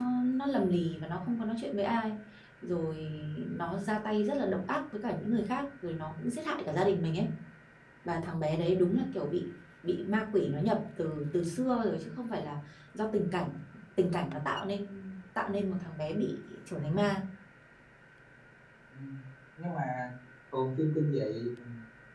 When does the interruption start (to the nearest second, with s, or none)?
none